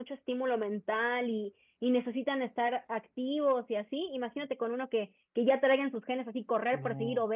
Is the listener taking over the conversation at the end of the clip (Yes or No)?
No